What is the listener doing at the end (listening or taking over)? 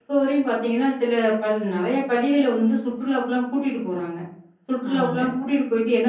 listening